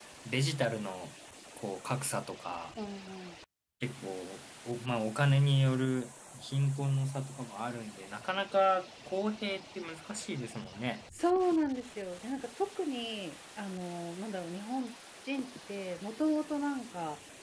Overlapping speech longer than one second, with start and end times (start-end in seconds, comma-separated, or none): none